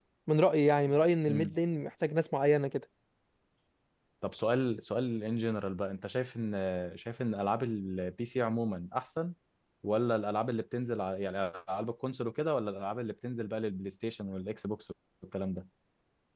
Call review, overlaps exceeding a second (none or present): none